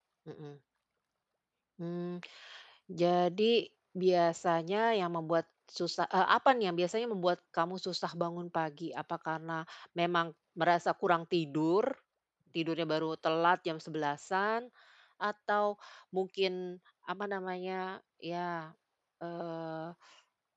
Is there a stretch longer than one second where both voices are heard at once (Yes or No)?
No